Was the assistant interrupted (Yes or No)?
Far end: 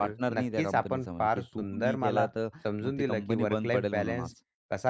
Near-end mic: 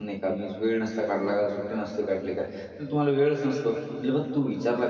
Yes